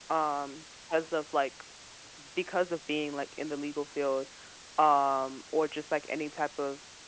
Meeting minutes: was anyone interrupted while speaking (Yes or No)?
No